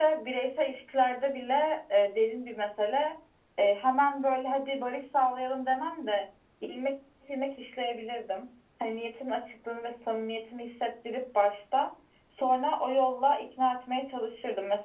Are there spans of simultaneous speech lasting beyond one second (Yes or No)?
No